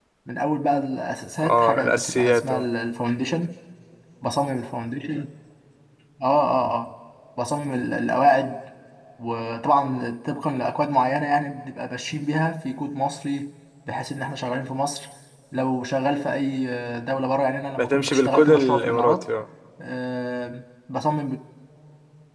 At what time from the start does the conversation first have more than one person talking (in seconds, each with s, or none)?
1.4 s